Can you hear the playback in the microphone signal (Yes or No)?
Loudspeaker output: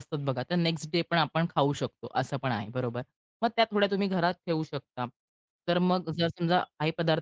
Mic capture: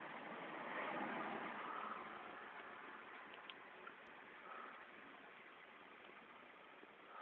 No